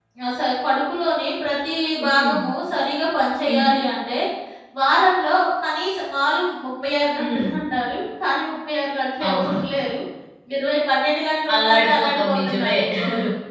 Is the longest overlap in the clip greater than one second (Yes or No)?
Yes